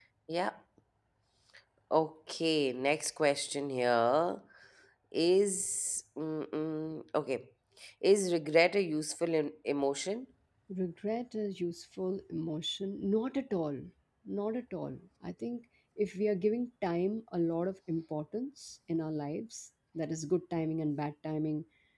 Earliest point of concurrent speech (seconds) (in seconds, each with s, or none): none